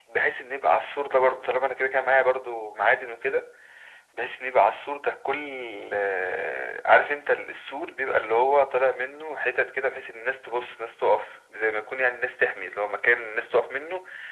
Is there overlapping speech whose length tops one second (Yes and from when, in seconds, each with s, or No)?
No